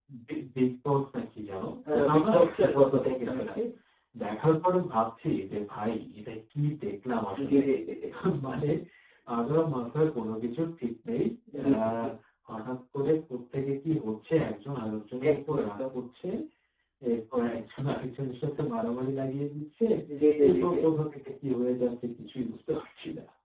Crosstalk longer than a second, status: present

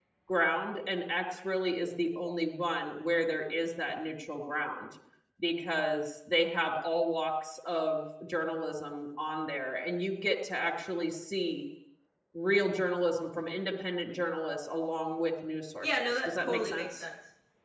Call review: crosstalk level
present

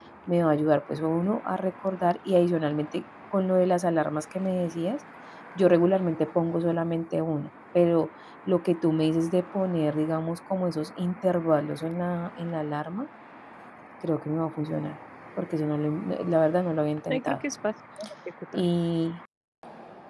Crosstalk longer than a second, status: none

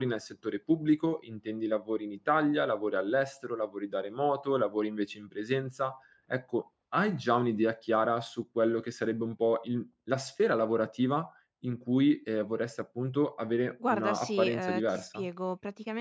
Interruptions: present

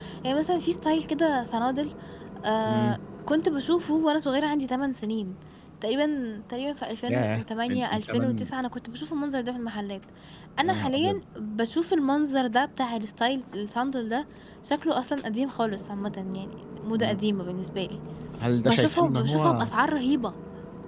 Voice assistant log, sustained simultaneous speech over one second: present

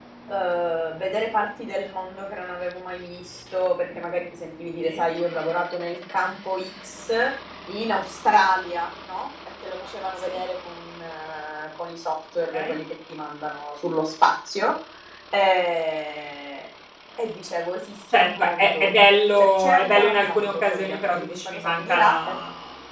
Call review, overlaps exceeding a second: present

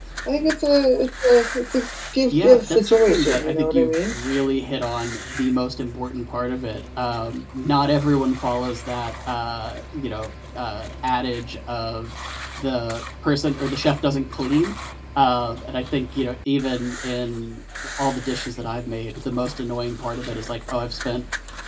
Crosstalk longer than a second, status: present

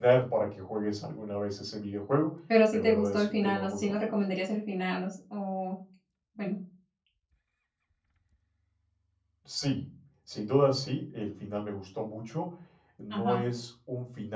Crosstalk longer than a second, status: present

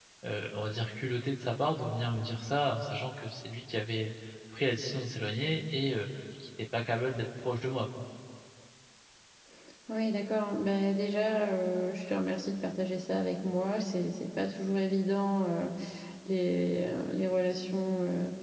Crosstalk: none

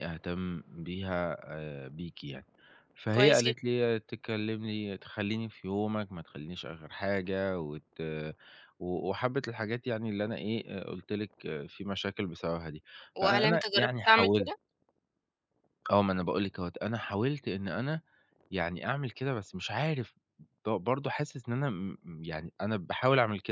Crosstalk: present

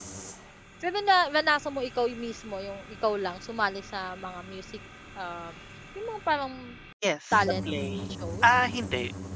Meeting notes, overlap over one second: none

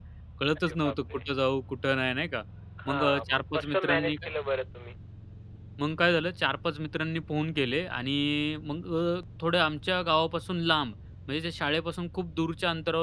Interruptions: present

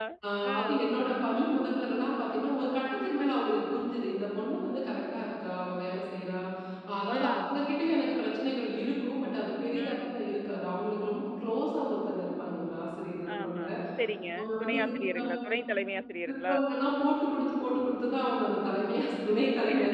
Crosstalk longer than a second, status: none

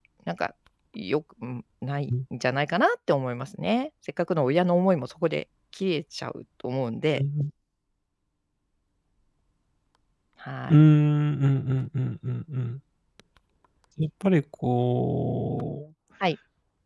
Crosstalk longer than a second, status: none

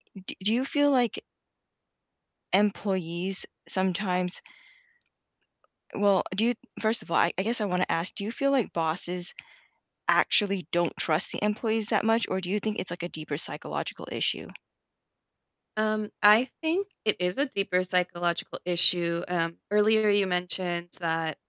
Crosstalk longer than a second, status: none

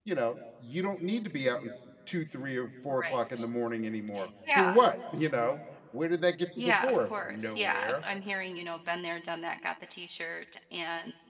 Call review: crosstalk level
present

